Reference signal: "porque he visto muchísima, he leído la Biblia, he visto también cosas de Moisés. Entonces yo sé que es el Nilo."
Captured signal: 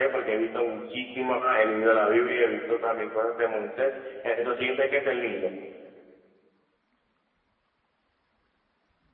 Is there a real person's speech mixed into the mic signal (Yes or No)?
No